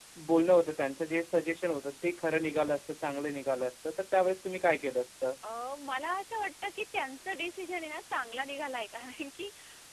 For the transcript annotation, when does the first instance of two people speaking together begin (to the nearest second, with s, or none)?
none